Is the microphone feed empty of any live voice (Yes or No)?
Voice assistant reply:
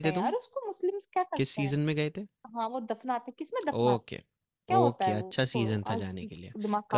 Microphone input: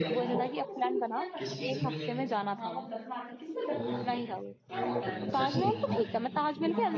No